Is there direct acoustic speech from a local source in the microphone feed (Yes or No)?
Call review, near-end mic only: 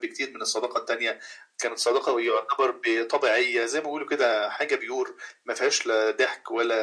No